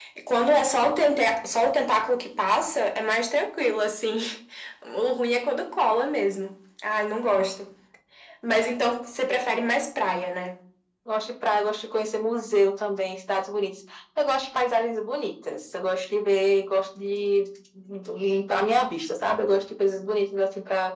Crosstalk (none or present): none